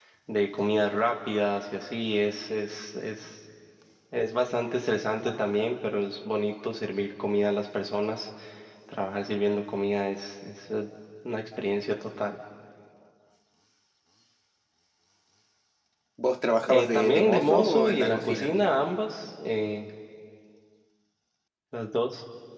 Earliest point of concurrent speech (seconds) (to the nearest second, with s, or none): 17 s